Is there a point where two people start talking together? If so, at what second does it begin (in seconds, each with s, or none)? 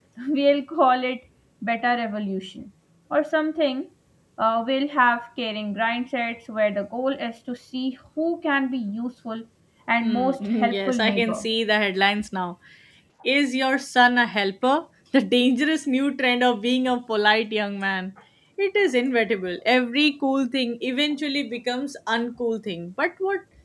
10.0 s